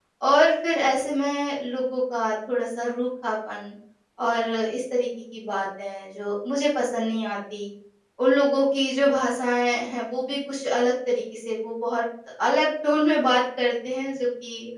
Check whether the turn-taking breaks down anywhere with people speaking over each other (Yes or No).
No